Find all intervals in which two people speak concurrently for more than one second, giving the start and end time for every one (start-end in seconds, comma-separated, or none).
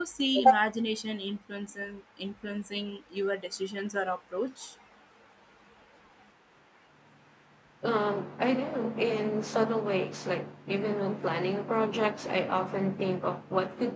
none